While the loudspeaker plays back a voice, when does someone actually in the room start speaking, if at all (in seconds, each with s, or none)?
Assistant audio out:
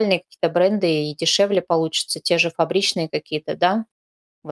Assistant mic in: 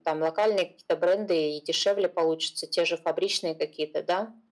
none